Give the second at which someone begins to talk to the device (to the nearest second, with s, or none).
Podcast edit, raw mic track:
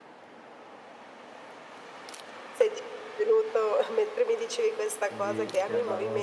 5 s